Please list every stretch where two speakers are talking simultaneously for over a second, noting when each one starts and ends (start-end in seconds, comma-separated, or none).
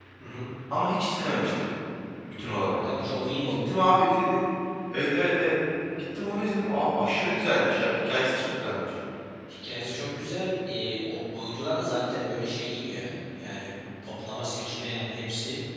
none